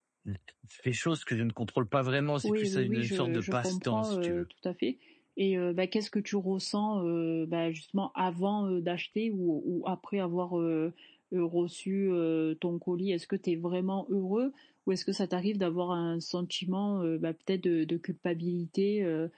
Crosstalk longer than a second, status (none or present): present